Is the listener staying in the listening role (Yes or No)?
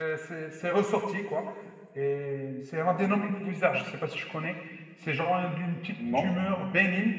Yes